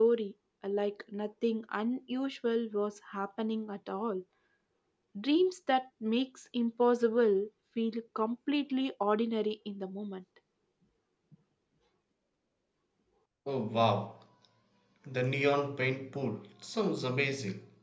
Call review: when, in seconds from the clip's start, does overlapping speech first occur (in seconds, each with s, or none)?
none